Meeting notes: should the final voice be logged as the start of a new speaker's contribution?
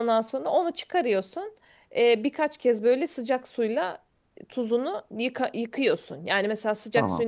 No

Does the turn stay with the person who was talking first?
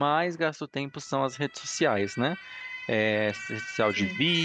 Yes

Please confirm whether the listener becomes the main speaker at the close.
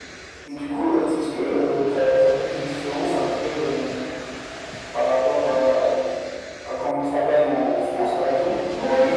Yes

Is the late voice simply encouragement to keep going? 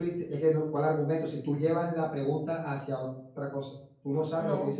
Yes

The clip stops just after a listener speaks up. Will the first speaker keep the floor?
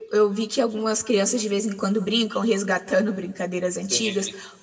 Yes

